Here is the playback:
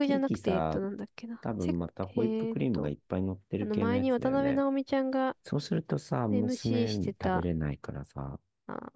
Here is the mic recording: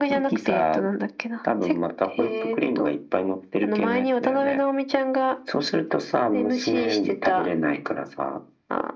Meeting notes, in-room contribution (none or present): none